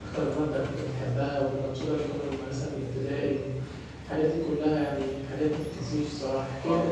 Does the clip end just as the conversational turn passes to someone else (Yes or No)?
Yes